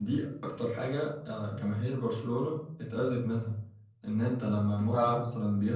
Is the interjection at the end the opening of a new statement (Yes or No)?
No